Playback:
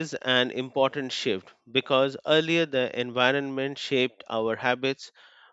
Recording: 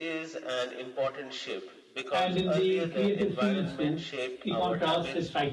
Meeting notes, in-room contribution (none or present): present